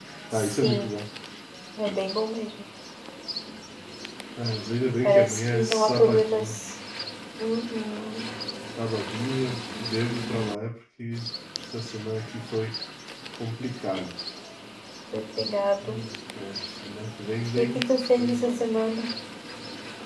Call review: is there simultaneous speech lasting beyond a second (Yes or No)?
Yes